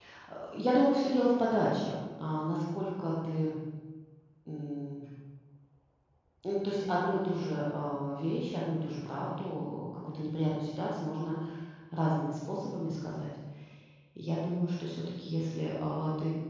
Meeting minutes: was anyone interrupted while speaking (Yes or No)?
No